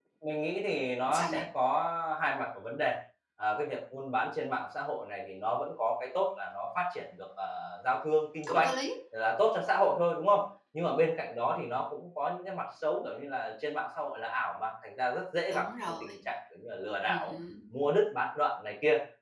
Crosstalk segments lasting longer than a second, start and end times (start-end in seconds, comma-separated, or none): none